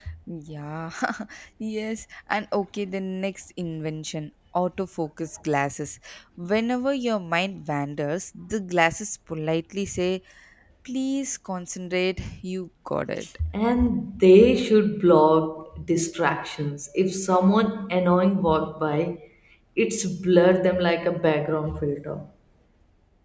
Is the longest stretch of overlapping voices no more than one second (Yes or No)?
Yes